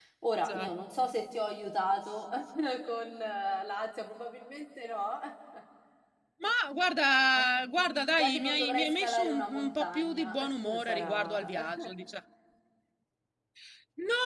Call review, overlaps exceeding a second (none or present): present